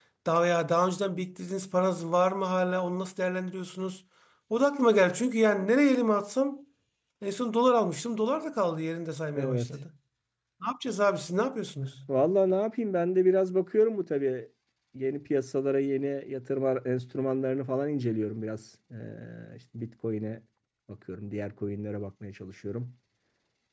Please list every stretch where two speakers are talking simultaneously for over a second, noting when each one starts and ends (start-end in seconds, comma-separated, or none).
none